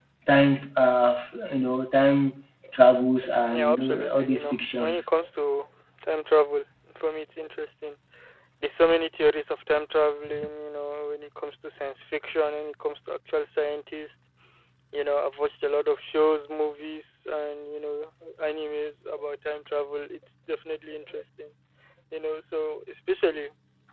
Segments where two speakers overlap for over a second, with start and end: 3.5-5.1

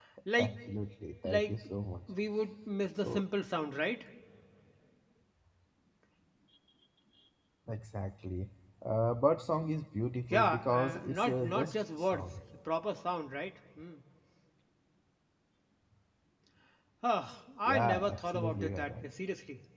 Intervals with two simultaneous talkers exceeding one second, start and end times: 10.3-12.3, 17.8-19.1

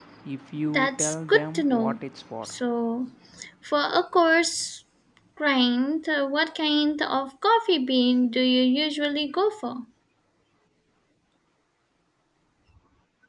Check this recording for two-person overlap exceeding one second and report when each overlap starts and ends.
0.7-2.0

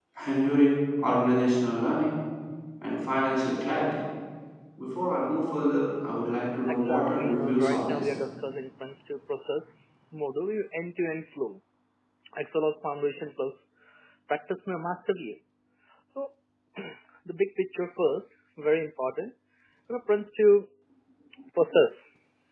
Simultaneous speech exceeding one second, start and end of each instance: 6.8-8.1

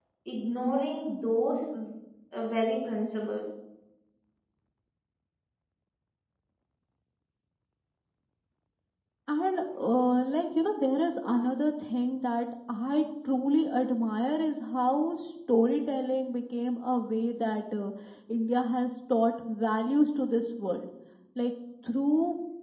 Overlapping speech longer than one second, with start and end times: none

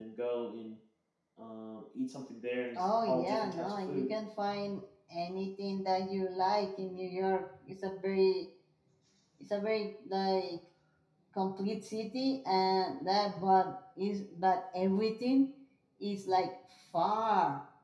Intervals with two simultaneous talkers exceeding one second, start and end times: 2.8-4.1

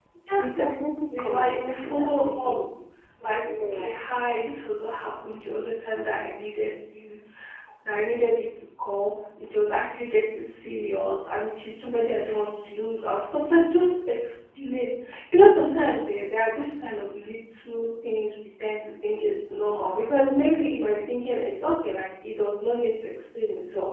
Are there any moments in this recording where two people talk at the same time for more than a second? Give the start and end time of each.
1.1-2.6

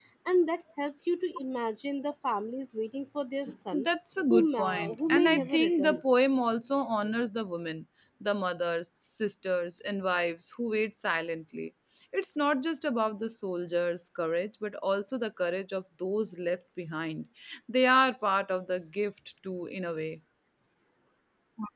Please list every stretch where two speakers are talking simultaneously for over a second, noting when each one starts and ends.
4.3-6.0

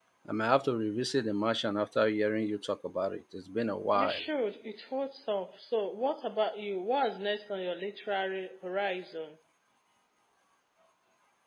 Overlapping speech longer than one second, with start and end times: none

